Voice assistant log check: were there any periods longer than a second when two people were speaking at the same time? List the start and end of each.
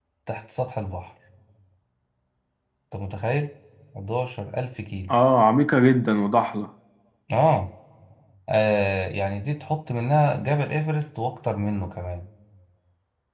none

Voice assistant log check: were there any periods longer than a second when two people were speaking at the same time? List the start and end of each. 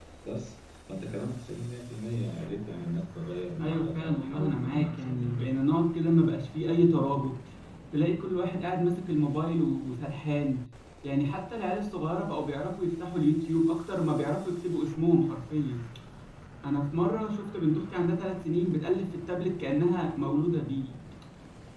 3.6-5.3

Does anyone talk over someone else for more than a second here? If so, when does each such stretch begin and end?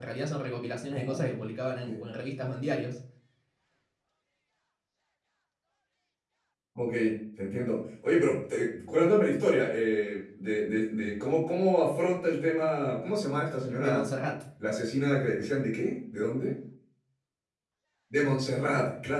none

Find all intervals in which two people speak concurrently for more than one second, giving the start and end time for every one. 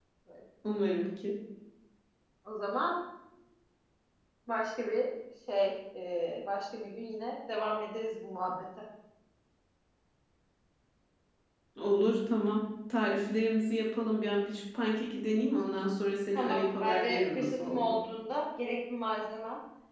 16.3-17.9

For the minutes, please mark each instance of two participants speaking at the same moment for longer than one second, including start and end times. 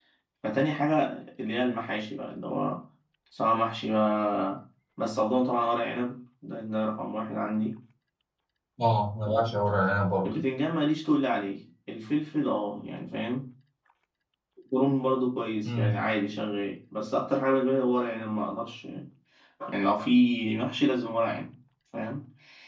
none

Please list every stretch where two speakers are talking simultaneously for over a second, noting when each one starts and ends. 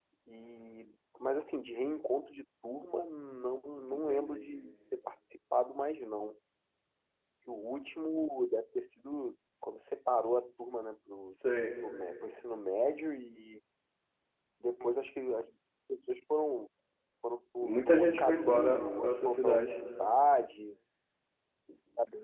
17.6-19.7

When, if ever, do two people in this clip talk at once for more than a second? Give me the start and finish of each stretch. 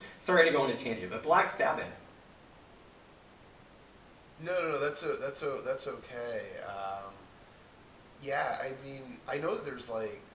none

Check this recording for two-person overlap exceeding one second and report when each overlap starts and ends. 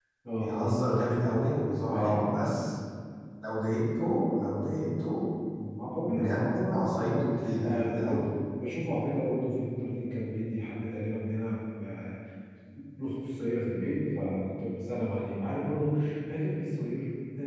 6.1-7.3

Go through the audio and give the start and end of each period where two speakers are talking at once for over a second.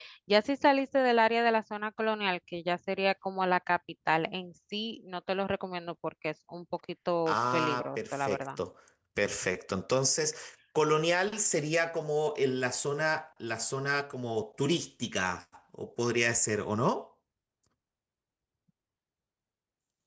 7.3-8.5

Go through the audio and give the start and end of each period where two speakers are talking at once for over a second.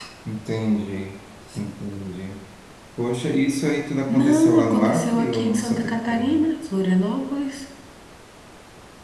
4.1-6.4

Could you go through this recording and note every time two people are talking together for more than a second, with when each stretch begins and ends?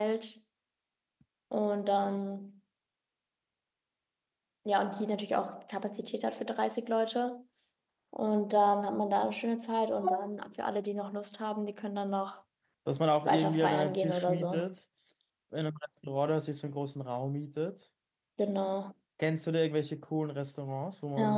13.3-14.7

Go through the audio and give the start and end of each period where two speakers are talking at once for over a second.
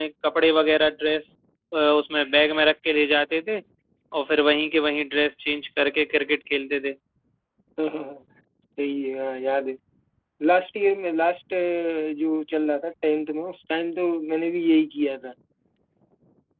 none

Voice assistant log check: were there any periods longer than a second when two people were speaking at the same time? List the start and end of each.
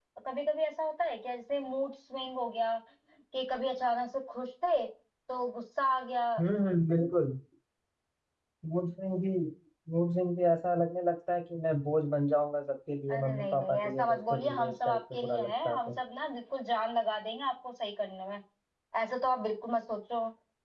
13.1-15.9

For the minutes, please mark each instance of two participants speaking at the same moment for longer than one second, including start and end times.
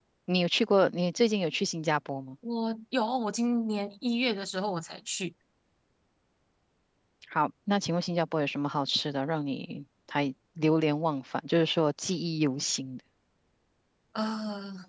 none

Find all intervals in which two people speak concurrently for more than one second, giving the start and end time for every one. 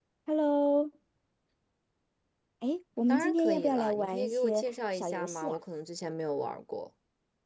3.1-5.6

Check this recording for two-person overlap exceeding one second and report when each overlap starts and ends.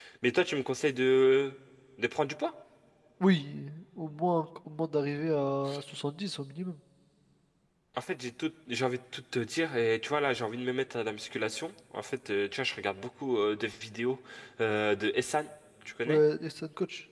none

